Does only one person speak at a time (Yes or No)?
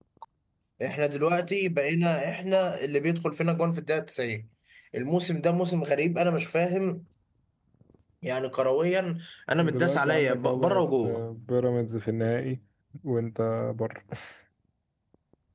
No